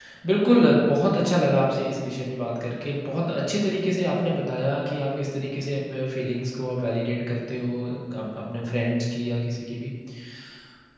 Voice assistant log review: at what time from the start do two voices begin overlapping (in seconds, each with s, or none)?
none